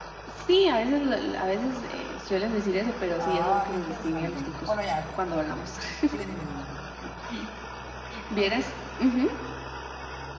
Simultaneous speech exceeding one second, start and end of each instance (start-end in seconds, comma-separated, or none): 3.2-4.8